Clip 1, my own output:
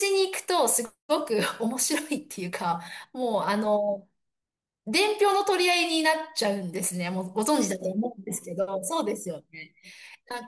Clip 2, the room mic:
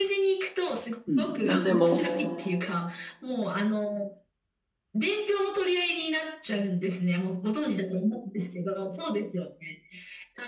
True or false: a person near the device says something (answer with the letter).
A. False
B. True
B